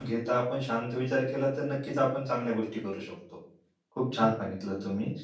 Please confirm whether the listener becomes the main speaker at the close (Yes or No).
No